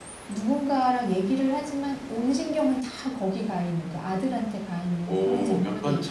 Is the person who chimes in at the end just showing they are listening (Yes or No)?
No